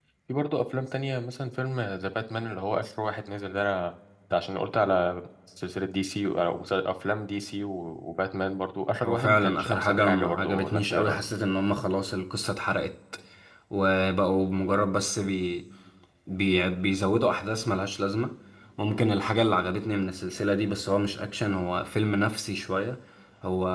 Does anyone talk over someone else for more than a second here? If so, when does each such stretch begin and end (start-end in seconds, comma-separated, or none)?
9.0-11.2